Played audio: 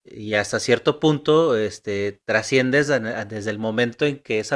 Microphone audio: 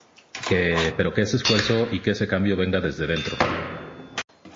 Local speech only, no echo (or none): que, pero que ese esfuerzo y que ese cambio venga desde dentro.